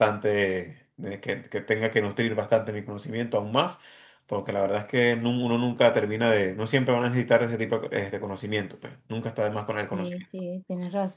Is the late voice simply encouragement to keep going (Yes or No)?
No